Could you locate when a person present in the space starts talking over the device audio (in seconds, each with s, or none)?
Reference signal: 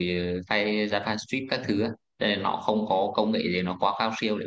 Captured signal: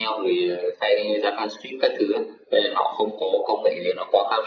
none